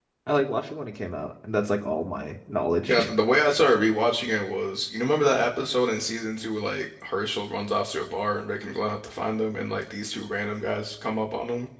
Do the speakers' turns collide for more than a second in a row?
No

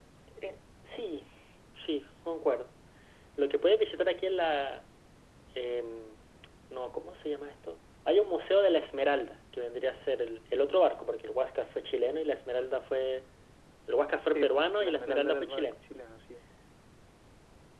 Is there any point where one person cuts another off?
Yes, from 14.3 s

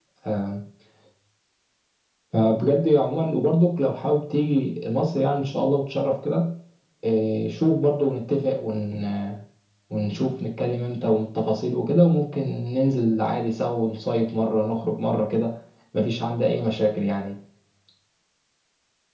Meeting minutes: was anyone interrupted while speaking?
No

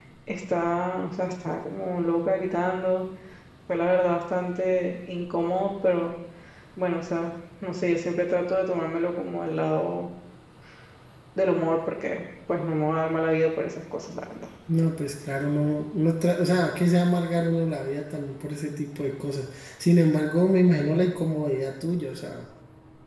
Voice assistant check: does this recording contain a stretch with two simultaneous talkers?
No

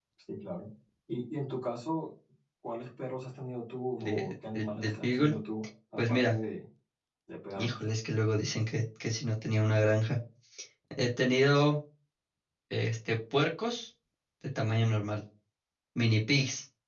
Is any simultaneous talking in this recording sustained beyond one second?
Yes, from 4.0 s

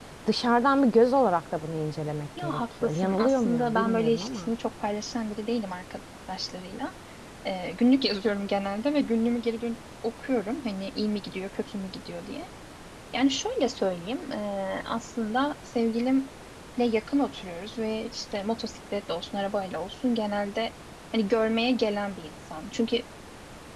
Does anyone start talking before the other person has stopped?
Yes, from 2.4 s

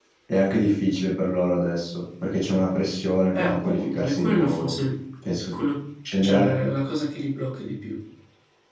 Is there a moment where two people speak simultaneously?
Yes, from 3.4 s

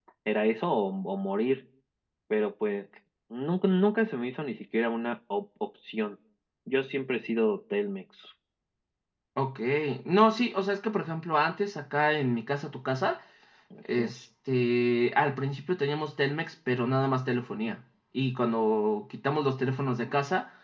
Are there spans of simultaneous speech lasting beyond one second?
No

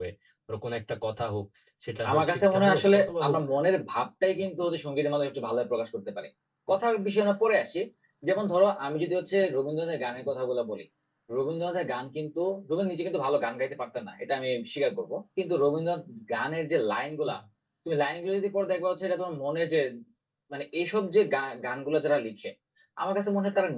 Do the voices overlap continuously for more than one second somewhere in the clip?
Yes, from 2.1 s

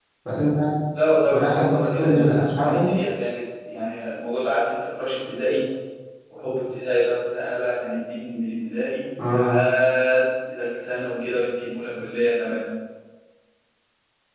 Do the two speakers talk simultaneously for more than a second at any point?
Yes, from 1.2 s

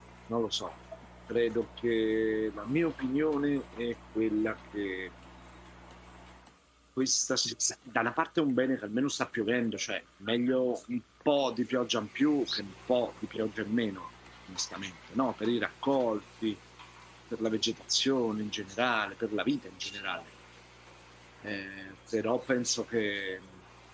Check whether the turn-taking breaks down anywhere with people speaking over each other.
No

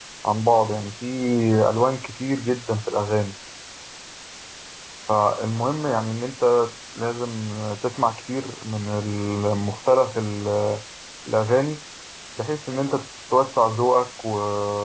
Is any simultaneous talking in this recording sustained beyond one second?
No

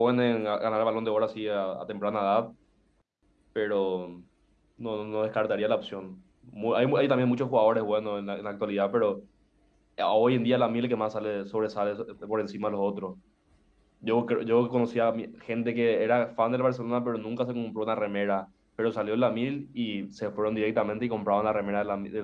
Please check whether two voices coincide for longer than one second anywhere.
No

